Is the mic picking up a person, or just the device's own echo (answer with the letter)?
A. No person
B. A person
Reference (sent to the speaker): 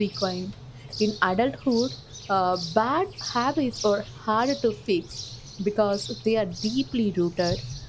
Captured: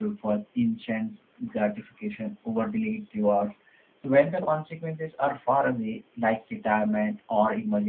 B